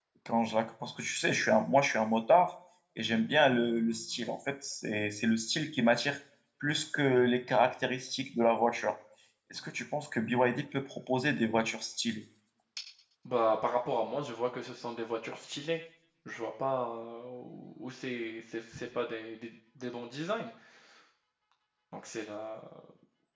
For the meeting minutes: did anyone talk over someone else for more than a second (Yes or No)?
No